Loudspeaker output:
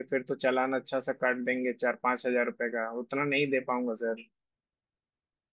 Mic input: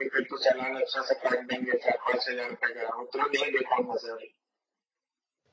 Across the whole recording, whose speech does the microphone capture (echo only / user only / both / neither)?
echo only